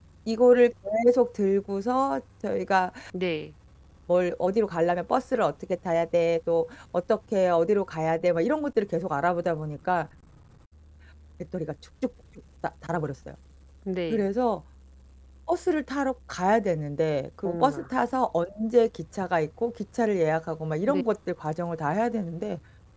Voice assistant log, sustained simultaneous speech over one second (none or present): none